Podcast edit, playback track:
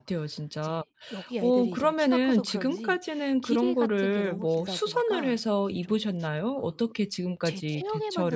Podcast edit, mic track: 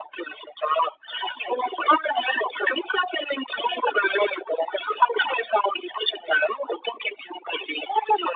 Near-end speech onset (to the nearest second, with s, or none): none